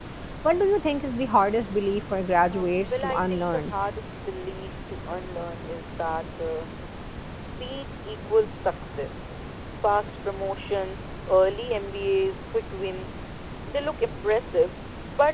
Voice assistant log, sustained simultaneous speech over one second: present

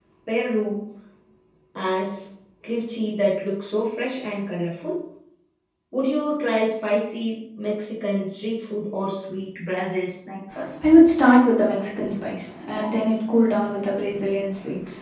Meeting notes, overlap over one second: none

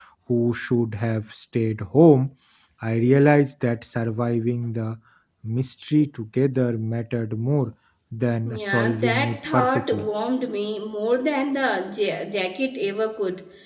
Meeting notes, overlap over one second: present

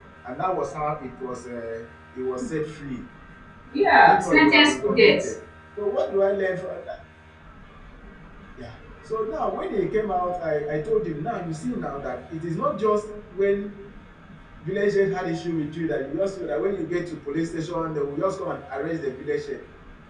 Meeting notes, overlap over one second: present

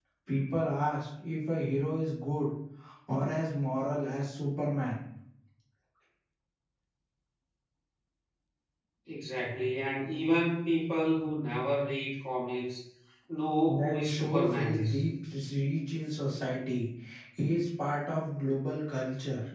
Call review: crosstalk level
present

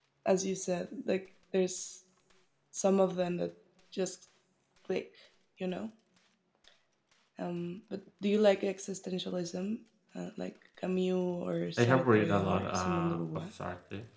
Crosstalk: present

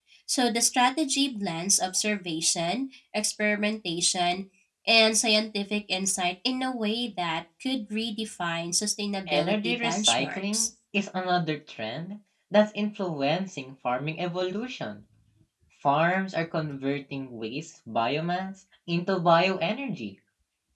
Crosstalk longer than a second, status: present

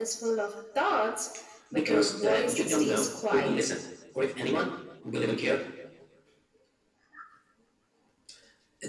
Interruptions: present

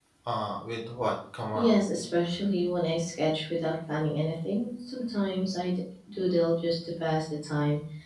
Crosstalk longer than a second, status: none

